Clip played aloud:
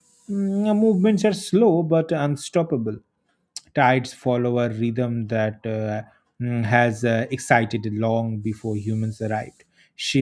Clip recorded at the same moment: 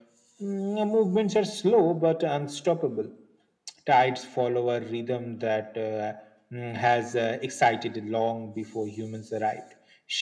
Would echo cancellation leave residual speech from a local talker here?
No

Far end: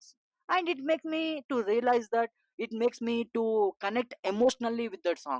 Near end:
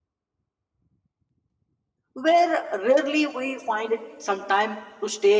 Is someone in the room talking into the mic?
Yes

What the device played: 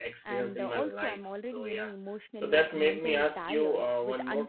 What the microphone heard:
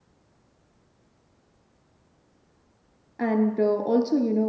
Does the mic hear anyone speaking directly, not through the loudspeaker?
Yes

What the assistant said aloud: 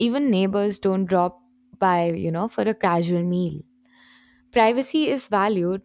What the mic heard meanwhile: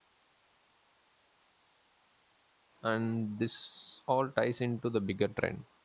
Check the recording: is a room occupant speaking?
Yes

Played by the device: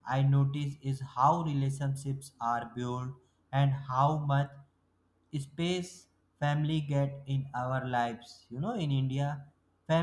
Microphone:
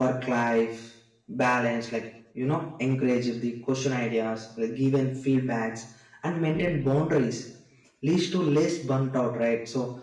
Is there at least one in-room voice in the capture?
Yes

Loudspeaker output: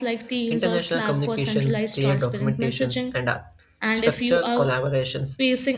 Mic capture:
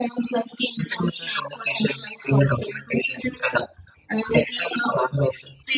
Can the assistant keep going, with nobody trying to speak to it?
Yes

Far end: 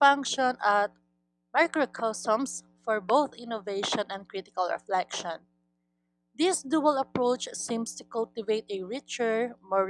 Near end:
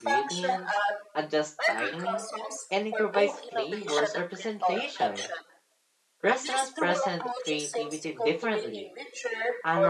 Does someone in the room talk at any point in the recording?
Yes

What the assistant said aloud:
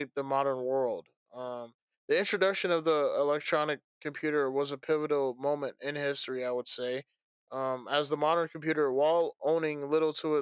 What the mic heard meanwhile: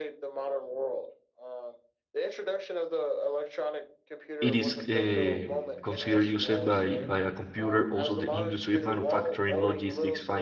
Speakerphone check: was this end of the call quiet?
No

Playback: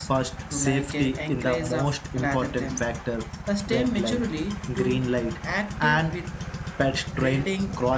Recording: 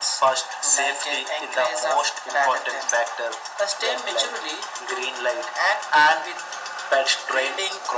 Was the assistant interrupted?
No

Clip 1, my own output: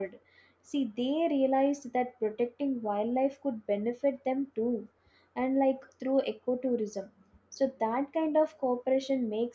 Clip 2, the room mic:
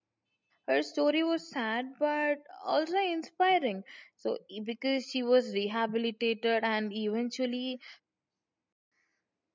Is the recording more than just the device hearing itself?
Yes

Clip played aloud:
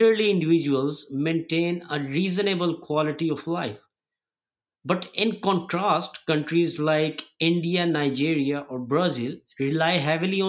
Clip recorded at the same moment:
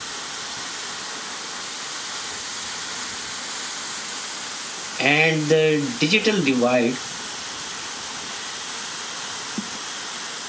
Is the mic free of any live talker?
No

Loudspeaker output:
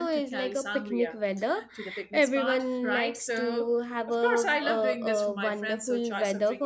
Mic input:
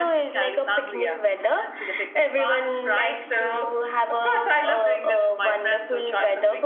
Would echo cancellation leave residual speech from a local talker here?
No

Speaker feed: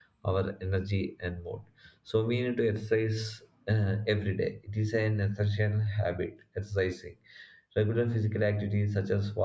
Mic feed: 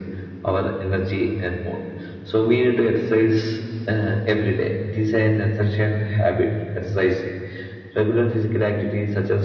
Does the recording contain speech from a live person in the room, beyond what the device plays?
No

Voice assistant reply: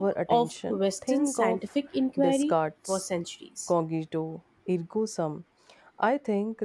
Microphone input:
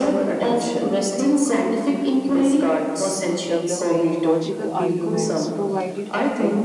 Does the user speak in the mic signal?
Yes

